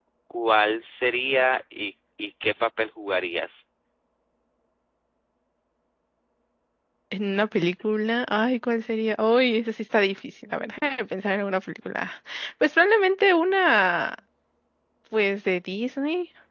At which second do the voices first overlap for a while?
none

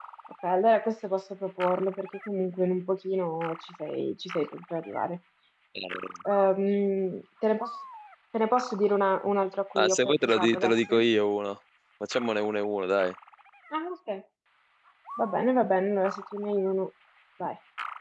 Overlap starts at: 9.8 s

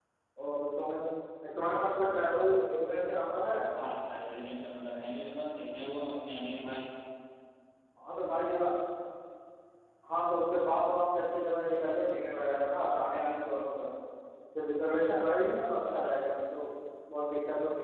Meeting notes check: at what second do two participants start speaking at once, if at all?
none

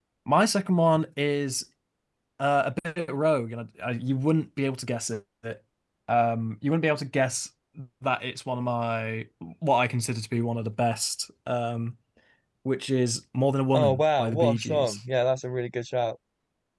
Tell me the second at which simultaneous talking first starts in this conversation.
13.7 s

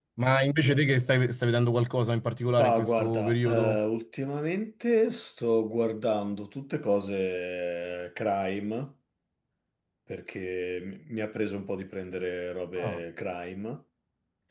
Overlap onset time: 2.5 s

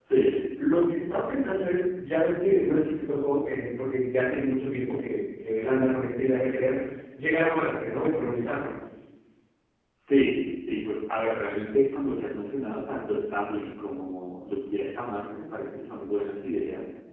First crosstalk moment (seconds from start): none

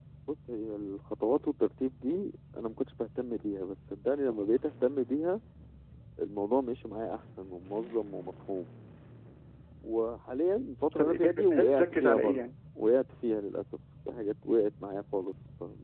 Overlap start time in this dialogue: 10.9 s

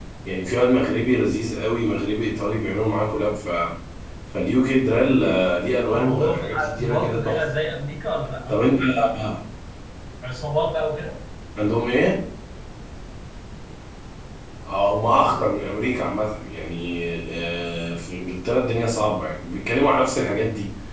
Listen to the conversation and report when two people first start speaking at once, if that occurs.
5.9 s

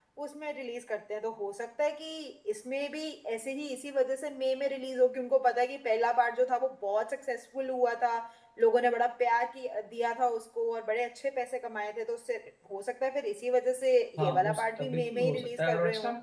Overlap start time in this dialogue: 14.2 s

